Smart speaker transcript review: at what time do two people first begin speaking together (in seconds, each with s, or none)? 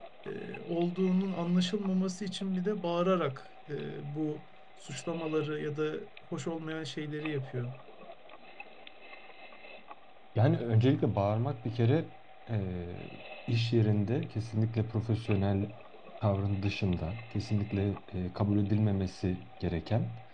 none